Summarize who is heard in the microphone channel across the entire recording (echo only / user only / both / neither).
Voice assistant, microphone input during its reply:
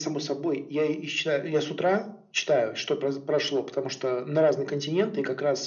echo only